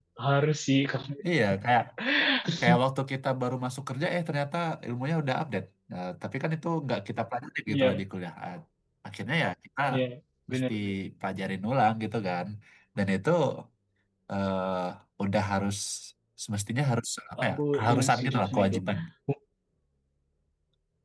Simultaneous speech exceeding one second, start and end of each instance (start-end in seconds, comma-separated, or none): 17.4-18.8